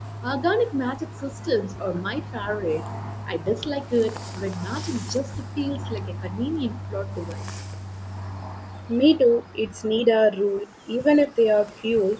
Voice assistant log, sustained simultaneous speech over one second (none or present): none